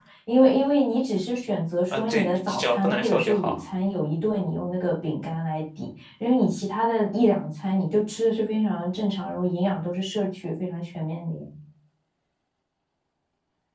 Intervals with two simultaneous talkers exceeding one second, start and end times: 1.9-3.6

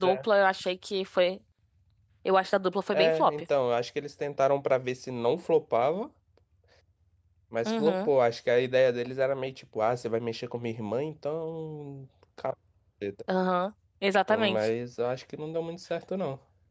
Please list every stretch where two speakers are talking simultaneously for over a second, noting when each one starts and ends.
none

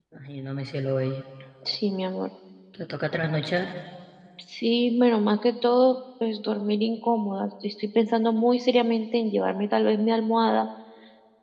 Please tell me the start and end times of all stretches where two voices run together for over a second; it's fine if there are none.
none

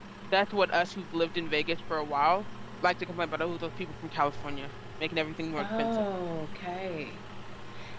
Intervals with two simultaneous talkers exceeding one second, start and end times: none

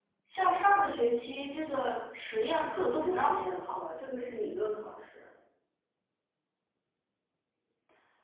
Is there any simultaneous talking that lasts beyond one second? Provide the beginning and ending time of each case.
2.7-4.0

